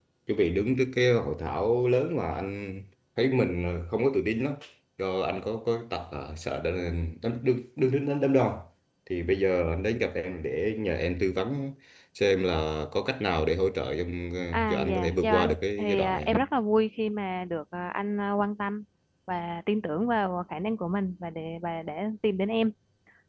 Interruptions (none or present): present